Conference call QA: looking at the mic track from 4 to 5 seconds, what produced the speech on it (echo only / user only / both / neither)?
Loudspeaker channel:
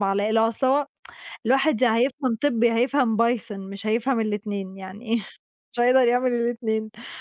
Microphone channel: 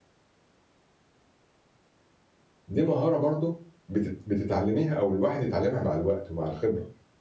user only